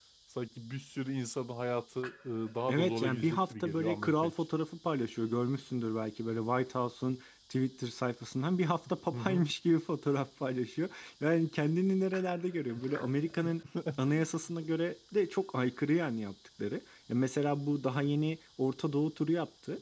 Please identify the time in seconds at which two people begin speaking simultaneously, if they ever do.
2.7 s

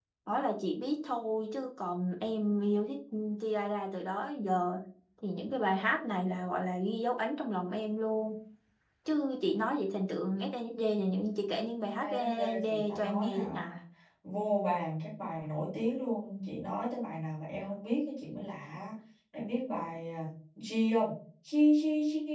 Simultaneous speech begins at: 12.0 s

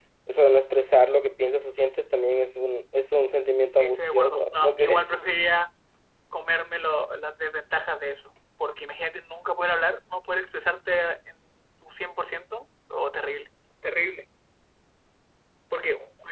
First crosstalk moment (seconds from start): 3.8 s

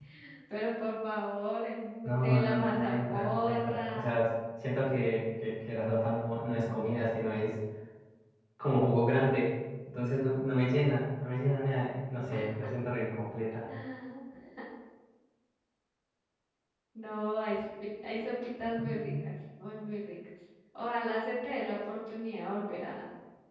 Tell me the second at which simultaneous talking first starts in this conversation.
2.0 s

